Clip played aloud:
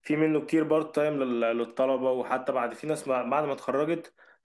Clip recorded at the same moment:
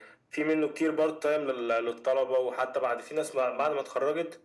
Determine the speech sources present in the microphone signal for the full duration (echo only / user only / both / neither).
echo only